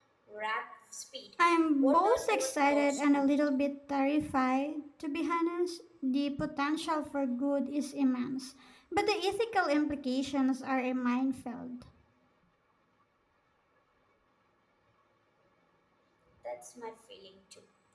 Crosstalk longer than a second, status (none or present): present